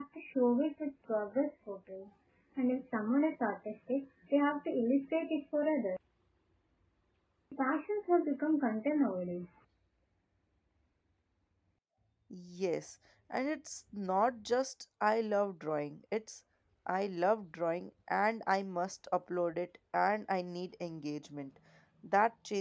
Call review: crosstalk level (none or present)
none